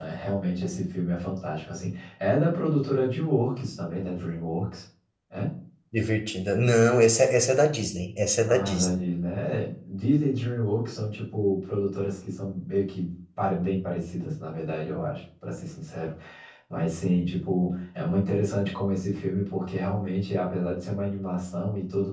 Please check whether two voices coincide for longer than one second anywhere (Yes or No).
No